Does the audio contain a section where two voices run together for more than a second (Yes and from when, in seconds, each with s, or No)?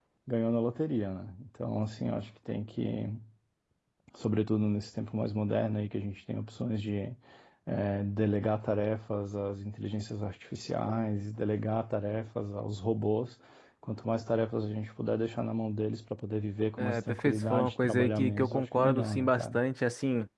Yes, from 16.8 s